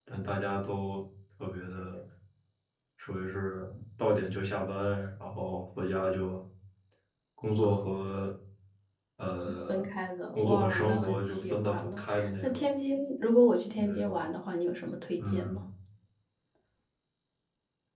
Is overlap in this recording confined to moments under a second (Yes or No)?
No